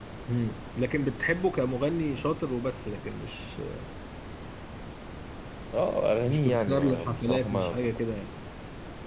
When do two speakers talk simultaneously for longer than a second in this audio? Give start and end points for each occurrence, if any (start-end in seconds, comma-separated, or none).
6.2-7.7